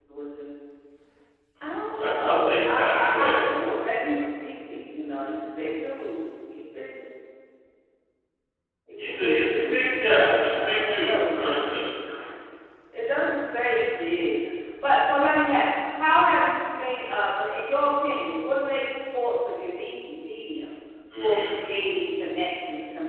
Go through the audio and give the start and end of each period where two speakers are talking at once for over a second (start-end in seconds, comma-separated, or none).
2.0-3.4, 9.0-11.7